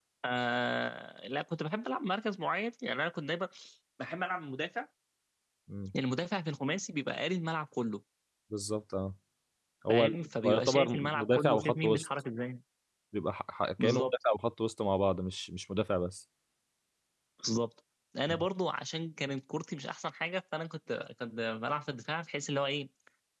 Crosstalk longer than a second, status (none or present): present